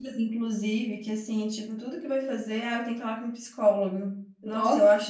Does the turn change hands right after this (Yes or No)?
No